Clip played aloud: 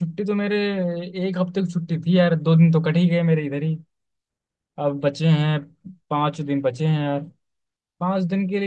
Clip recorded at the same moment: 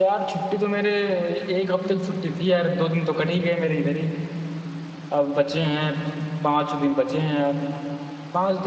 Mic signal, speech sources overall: echo only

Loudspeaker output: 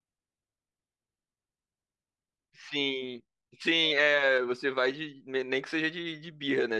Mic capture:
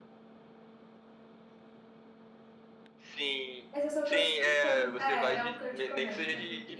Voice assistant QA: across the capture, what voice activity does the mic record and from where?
both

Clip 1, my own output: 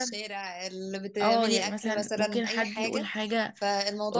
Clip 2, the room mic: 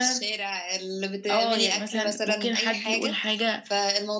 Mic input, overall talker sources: echo only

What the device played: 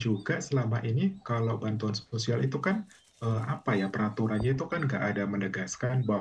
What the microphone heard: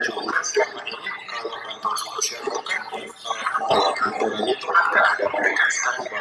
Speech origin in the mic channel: echo only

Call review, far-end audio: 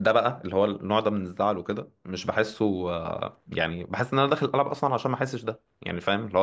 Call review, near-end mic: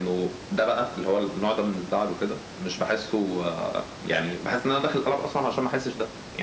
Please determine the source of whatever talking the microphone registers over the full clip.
echo only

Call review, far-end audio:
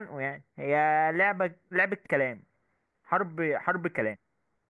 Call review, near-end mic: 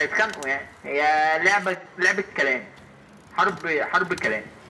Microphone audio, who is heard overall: echo only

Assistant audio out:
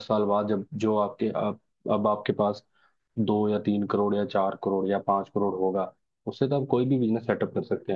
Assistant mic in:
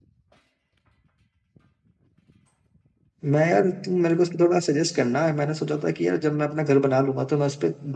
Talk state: user only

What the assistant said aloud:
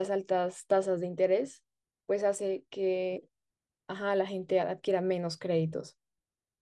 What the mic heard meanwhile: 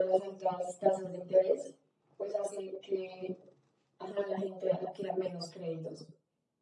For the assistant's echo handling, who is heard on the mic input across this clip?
echo only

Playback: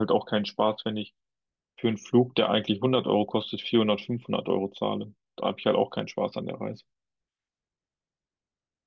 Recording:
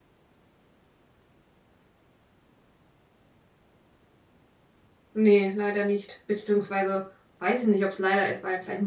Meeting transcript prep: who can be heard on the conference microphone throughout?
user only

